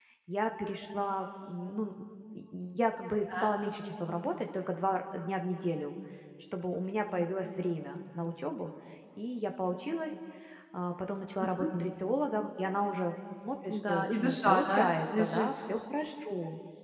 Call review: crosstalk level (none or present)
present